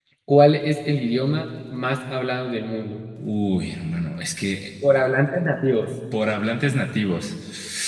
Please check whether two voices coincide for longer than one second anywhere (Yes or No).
No